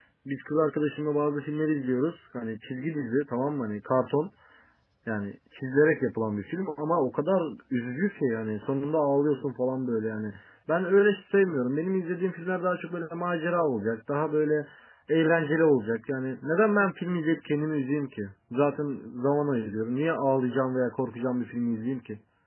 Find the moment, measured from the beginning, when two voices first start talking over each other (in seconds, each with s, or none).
none